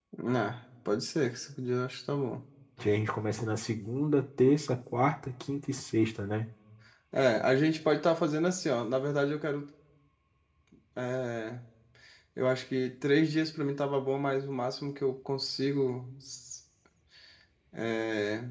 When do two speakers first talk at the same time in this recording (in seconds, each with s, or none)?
none